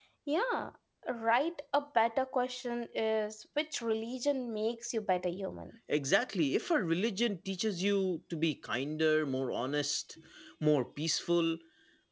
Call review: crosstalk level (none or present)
none